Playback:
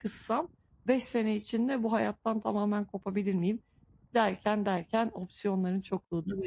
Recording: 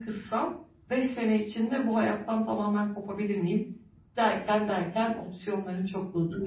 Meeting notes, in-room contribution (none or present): none